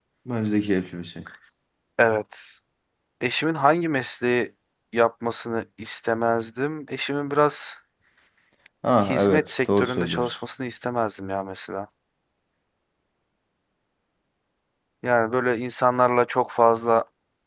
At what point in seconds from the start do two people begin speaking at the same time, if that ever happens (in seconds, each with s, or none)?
9.0 s